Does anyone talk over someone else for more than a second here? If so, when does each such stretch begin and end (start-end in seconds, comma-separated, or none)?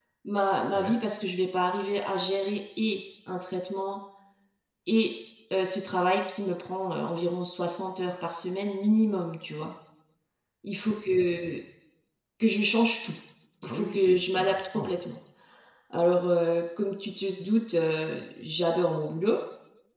13.6-14.9